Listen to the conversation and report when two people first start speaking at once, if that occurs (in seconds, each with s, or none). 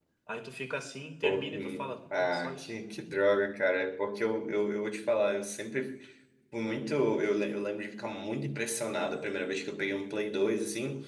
1.2 s